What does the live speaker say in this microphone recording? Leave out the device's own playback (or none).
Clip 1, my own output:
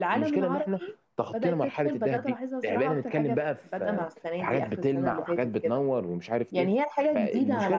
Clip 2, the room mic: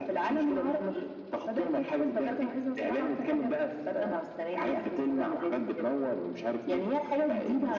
none